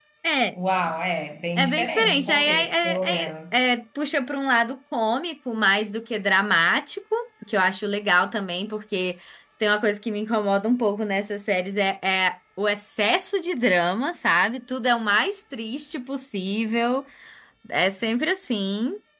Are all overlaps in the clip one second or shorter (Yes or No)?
No